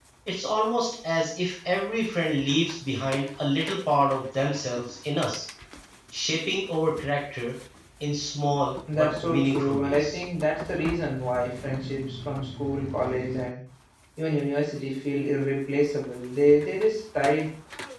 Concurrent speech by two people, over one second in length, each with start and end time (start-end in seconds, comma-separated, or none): 8.9-10.2